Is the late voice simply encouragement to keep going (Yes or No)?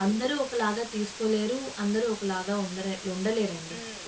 Yes